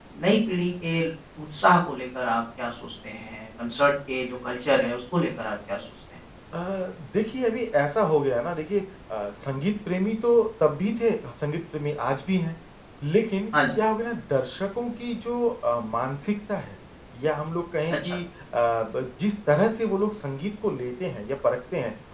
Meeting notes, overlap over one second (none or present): none